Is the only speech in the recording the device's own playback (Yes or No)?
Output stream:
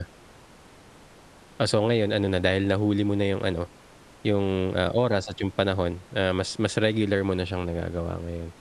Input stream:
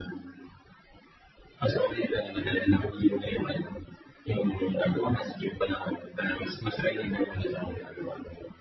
Yes